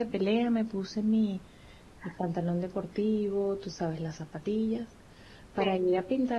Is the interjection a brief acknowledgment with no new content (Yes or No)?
Yes